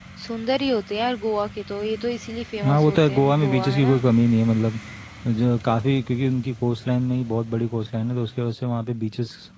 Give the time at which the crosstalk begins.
2.6 s

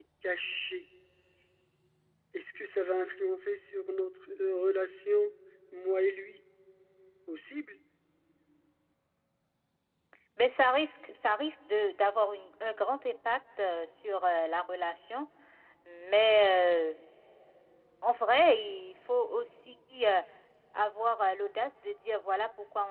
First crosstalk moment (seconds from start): none

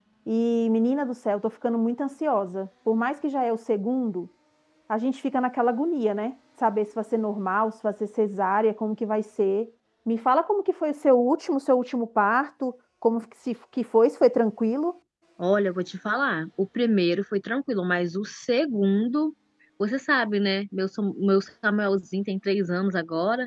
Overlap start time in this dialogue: none

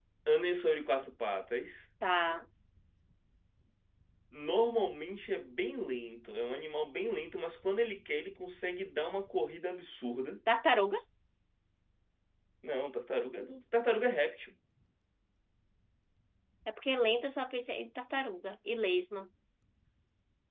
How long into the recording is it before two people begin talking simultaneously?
none

